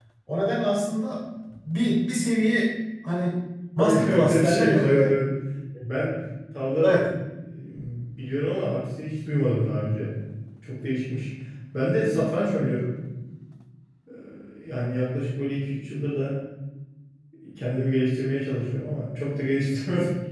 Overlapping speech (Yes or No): Yes